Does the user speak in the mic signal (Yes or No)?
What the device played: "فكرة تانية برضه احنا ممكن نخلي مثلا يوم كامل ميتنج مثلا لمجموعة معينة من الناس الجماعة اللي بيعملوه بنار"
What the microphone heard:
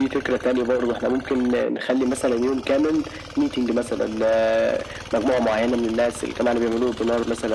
No